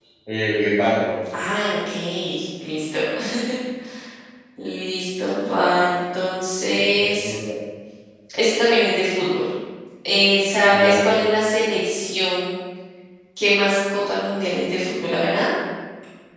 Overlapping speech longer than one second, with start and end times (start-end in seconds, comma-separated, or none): none